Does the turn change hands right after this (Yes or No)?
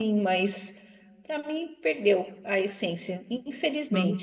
Yes